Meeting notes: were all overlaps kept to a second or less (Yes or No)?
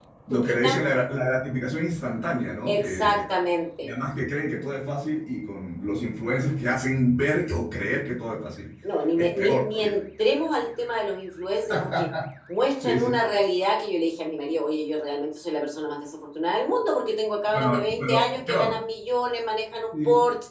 No